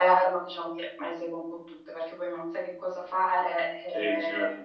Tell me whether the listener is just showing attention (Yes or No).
No